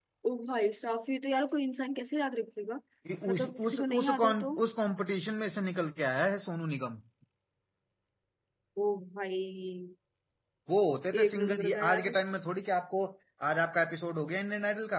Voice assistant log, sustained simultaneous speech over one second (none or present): present